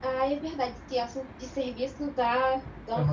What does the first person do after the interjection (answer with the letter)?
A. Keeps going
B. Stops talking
A